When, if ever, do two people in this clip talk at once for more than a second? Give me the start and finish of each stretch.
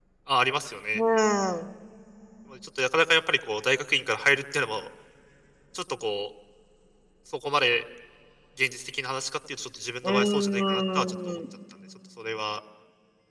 10.0-11.4

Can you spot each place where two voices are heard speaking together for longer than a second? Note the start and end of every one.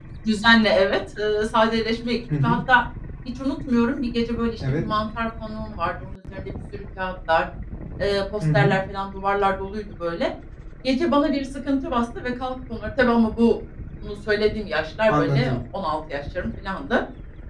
none

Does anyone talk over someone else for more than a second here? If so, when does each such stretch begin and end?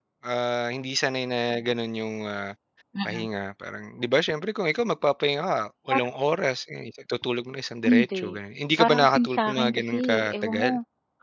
8.8-10.7

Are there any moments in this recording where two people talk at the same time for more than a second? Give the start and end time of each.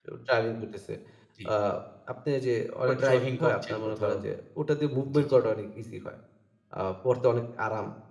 2.9-4.2

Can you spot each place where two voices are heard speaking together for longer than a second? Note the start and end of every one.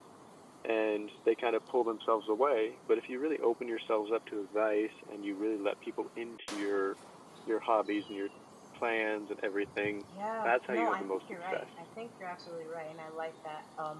10.4-11.8

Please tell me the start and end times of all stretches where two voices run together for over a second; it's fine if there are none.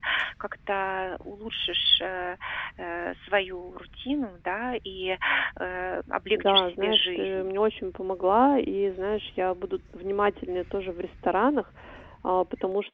6.3-7.5

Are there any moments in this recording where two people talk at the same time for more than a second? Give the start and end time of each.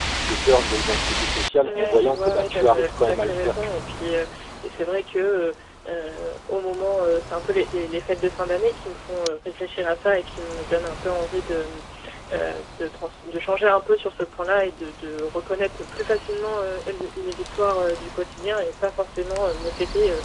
1.6-3.8

